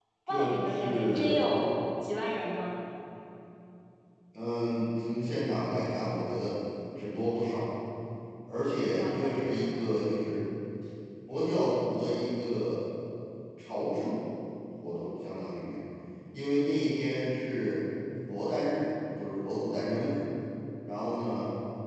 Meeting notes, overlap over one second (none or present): present